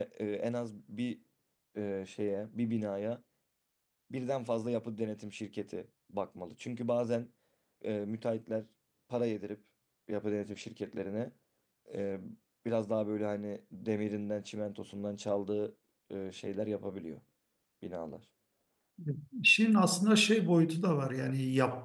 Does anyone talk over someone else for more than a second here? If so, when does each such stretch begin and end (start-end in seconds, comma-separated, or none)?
none